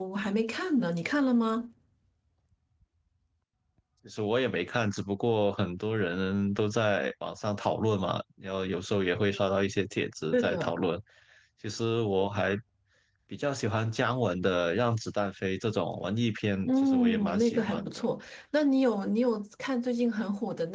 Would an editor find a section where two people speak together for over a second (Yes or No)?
Yes